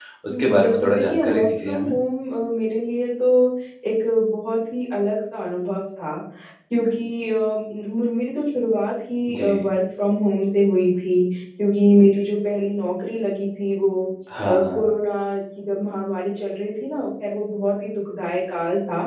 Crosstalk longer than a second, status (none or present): present